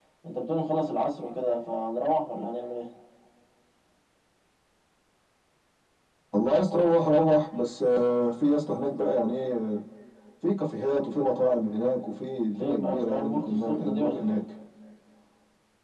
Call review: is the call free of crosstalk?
No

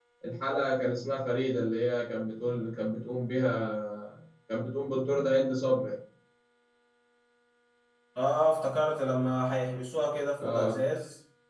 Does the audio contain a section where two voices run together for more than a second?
No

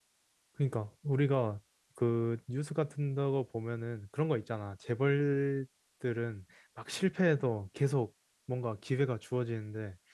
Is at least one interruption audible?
No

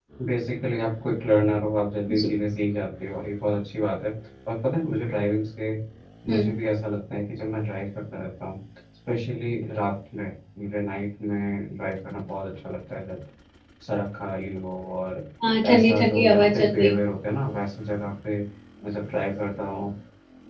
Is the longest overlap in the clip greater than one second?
Yes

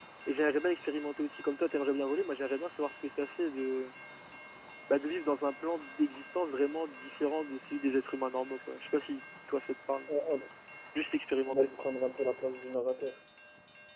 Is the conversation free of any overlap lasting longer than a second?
Yes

